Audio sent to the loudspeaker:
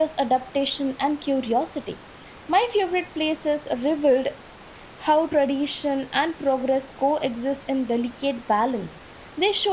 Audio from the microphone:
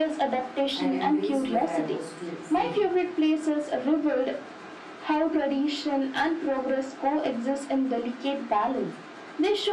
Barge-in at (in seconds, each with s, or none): 0.7 s